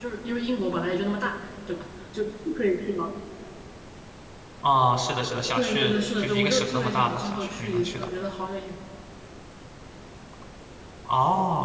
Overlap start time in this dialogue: 5.6 s

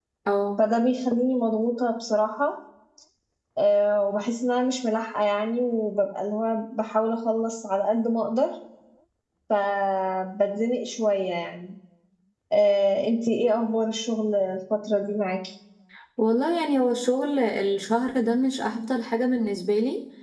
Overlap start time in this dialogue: none

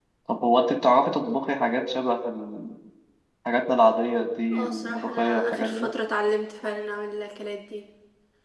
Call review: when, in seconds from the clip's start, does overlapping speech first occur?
4.5 s

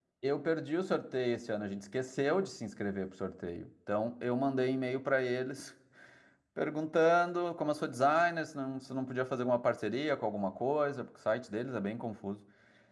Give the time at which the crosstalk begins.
none

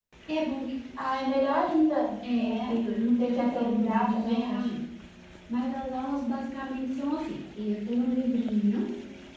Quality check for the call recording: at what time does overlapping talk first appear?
2.2 s

